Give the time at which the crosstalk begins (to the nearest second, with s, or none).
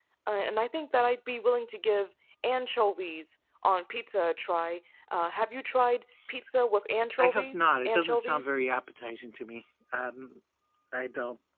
7 s